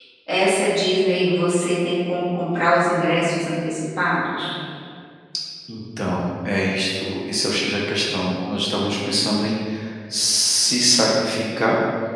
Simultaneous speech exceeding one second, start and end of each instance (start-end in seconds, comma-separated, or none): none